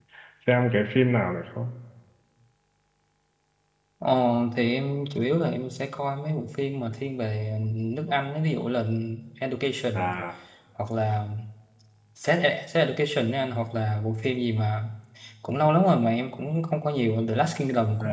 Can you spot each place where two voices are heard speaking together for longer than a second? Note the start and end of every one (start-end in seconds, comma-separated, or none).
none